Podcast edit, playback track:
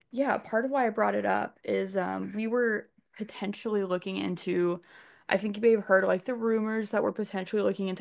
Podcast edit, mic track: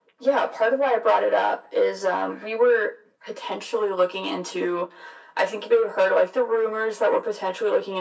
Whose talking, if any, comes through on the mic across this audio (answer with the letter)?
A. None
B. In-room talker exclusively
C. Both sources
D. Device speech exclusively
D